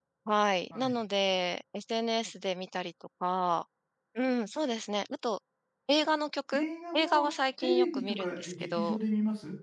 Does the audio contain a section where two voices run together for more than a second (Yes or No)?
Yes